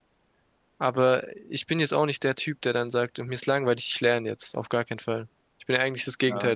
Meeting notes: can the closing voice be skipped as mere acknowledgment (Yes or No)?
No